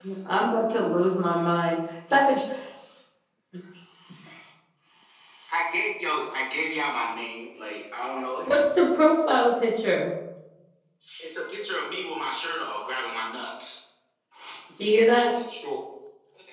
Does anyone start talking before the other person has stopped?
No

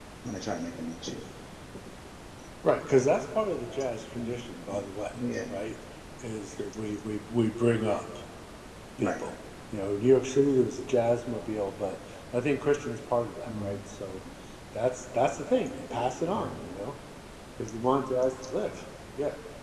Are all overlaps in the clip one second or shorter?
Yes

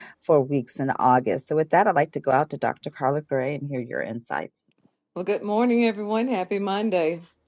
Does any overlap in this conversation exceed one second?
No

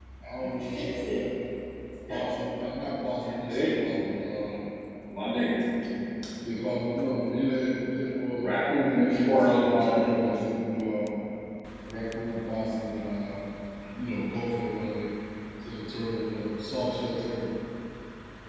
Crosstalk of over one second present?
Yes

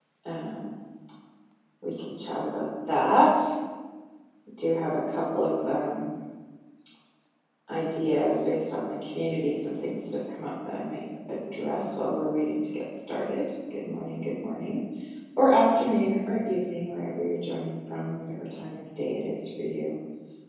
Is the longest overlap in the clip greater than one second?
No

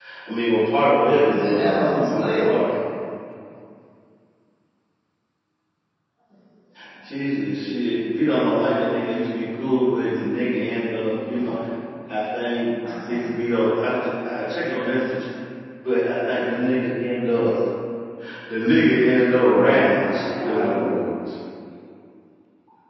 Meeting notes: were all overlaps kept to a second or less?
No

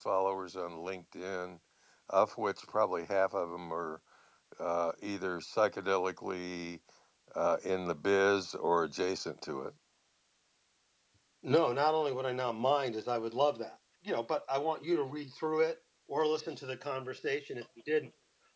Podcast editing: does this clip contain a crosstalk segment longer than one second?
No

